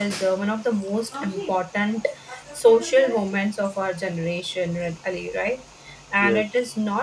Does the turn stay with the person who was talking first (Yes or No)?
Yes